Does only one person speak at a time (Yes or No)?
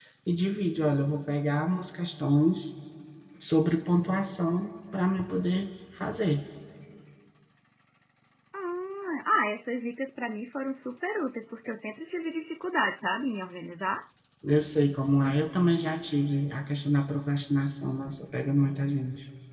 Yes